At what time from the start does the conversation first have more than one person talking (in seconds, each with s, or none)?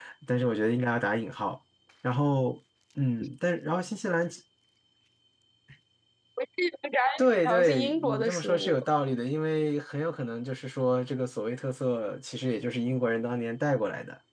7.2 s